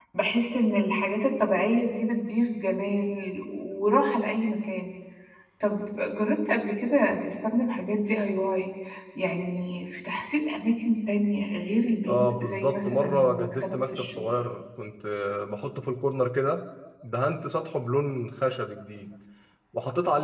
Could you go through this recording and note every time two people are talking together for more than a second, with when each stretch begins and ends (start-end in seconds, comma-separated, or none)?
12.1-14.3